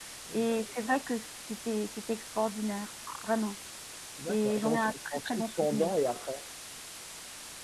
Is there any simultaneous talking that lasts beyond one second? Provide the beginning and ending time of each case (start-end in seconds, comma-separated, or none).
4.3-5.9